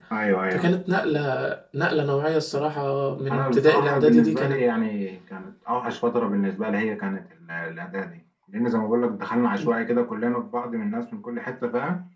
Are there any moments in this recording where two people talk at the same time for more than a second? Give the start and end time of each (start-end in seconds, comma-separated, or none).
3.3-4.6